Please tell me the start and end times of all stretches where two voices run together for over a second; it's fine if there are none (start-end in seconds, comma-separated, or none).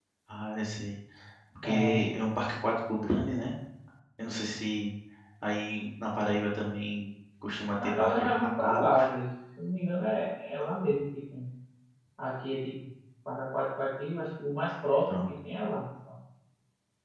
7.8-9.1